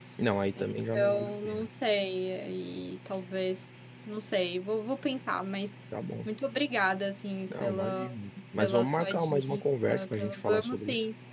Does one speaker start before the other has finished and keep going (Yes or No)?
Yes